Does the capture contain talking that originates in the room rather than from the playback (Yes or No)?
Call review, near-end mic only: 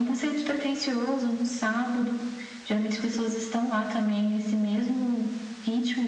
No